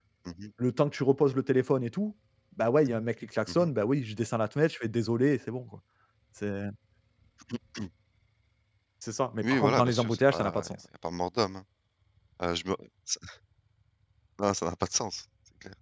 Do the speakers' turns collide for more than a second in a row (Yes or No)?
Yes